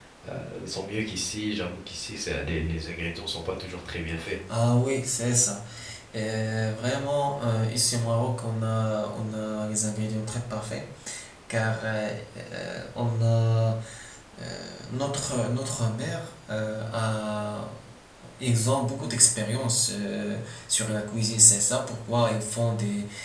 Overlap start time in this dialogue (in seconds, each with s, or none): none